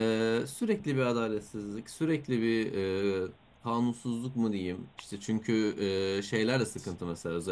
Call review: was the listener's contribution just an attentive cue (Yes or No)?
Yes